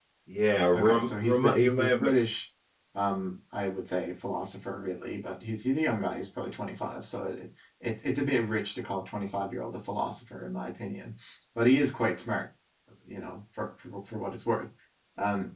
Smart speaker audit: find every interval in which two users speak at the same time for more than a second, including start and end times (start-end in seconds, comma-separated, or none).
0.7-2.0